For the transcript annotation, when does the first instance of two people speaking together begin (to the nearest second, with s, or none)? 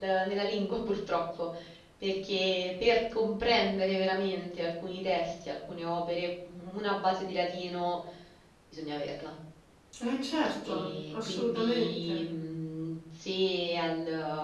11 s